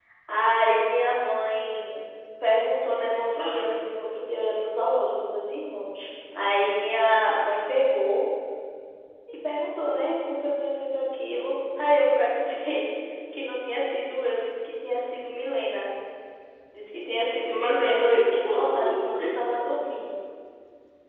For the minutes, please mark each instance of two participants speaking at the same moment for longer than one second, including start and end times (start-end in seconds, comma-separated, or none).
17.6-19.1